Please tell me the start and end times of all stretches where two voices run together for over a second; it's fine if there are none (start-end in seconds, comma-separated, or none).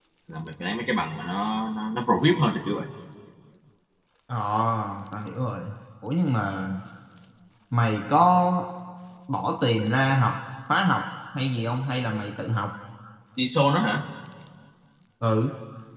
none